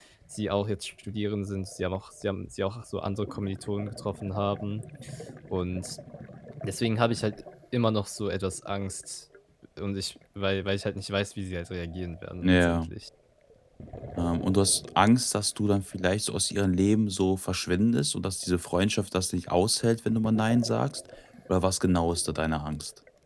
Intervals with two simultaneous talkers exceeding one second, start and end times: none

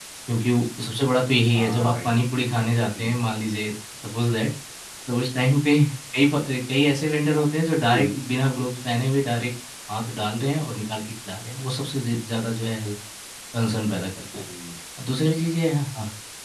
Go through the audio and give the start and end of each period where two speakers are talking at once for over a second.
none

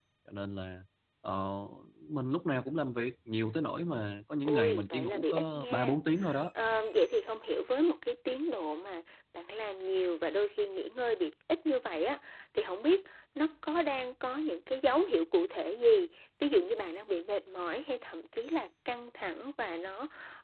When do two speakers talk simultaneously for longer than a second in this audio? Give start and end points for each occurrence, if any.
4.4-5.9

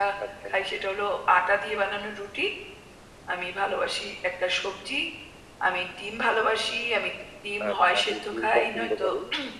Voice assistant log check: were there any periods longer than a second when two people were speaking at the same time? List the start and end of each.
7.7-9.0

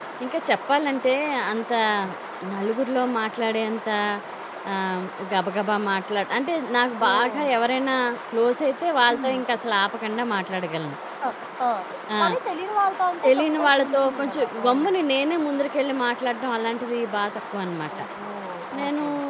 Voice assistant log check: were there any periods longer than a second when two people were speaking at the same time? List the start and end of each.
13.2-14.9

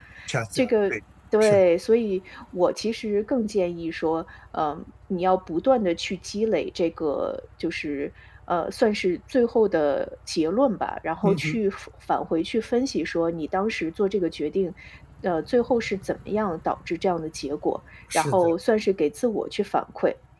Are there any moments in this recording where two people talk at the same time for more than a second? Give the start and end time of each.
none

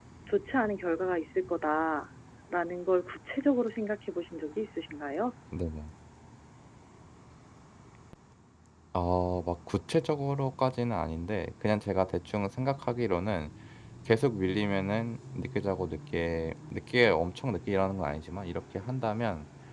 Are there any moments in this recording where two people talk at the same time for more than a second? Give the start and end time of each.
none

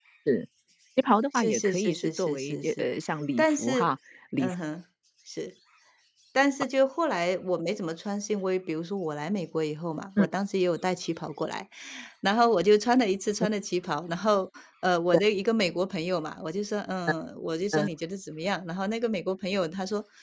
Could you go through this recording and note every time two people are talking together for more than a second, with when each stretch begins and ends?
1.3-2.9

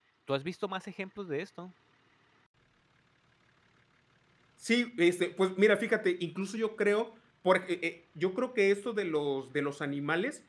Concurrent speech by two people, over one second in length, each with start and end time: none

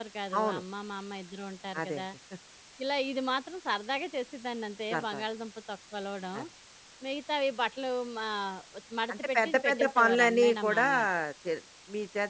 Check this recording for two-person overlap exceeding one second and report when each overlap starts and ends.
9.1-10.9

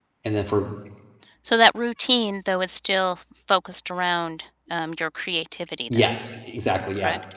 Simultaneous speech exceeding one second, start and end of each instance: none

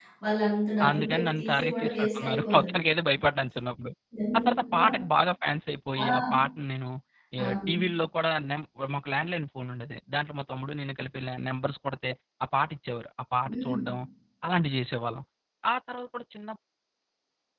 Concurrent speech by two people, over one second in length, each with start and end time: 0.9-2.8

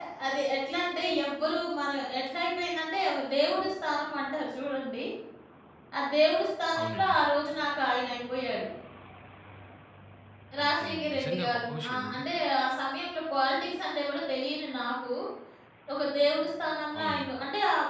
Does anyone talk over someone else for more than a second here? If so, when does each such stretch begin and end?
10.6-12.2

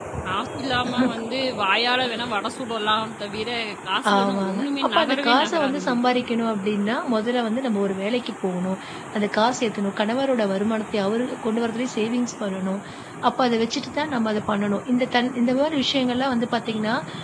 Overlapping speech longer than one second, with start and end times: 4.1-5.9

